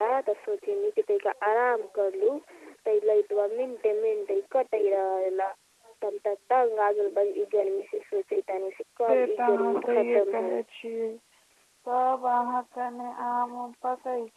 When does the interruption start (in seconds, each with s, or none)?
9.0 s